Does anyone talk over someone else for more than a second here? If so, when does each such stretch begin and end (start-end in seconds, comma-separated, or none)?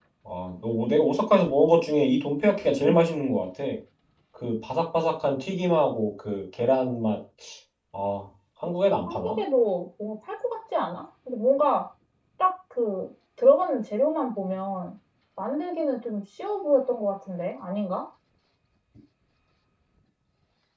none